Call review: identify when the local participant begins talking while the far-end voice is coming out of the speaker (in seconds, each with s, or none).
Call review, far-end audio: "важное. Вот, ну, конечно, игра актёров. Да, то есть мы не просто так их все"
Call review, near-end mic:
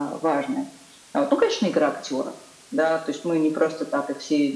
none